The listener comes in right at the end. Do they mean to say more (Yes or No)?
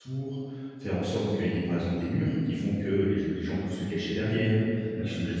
No